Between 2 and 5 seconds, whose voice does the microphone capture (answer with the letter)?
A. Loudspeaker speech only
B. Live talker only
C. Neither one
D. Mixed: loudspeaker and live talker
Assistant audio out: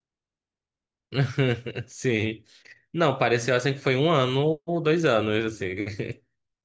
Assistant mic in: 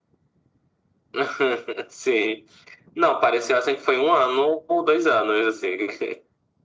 A